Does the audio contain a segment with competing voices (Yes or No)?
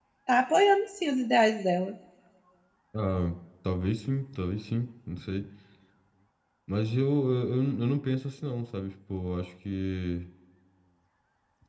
No